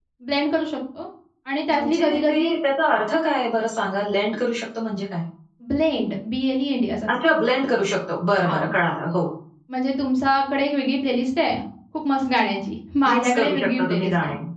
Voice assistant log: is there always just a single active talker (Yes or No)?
No